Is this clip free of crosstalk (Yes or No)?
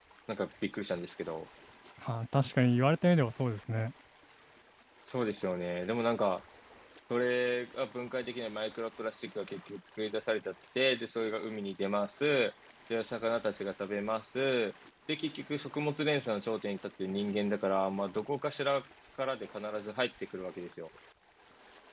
Yes